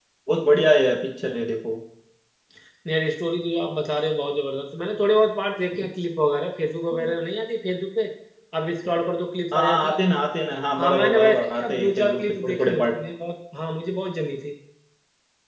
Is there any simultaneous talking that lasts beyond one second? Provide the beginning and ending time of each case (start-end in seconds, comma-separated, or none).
10.8-13.0